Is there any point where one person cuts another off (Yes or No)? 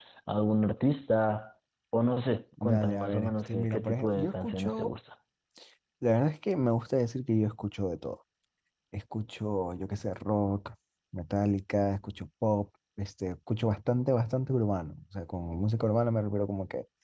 Yes